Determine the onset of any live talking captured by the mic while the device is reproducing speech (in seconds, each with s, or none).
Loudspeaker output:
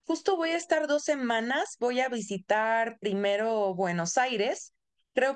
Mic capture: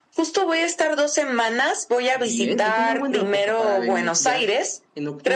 2.1 s